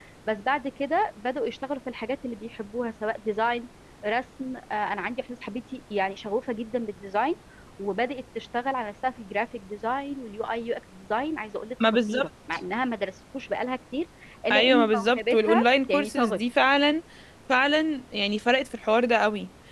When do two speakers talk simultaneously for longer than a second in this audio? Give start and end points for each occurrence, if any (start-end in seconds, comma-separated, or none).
14.5-16.4